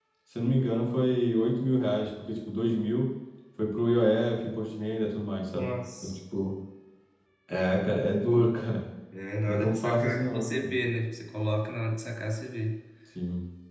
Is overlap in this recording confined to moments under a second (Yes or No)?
No